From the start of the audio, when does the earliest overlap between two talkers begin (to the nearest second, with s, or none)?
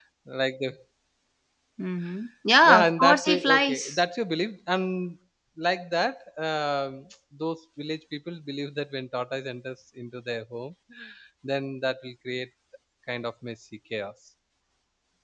3 s